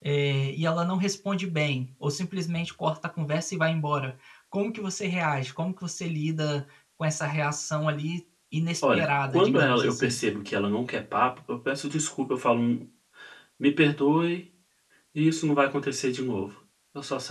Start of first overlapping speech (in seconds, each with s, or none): 8.8 s